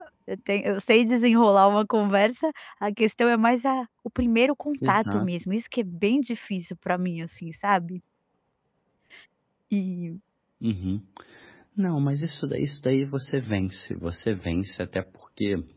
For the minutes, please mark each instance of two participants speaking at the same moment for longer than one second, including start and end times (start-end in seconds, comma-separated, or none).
none